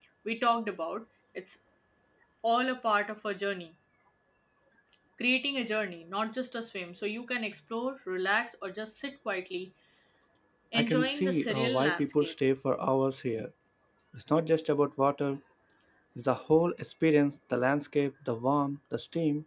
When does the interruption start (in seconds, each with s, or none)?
10.8 s